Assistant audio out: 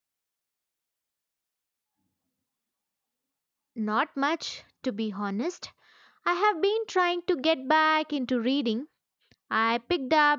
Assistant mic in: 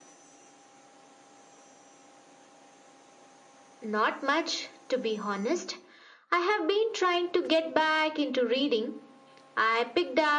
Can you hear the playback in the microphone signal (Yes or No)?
Yes